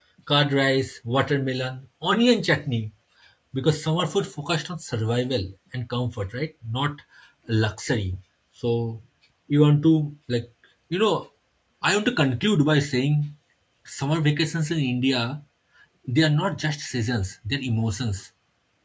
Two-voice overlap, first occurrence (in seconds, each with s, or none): none